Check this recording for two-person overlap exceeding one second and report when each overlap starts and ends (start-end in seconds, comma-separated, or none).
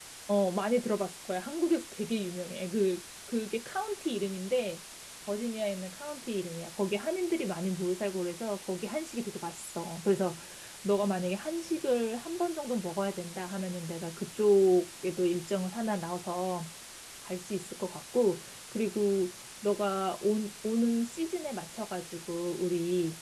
none